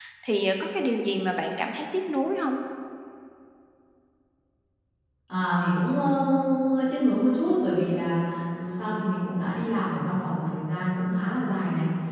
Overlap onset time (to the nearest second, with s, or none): none